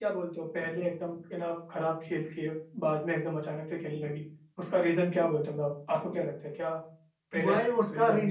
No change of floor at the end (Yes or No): No